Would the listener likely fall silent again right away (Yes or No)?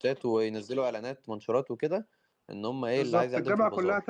No